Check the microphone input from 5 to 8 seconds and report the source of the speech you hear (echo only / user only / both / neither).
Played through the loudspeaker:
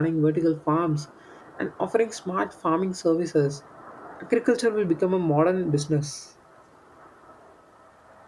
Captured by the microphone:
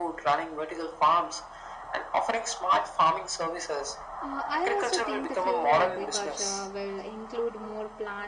both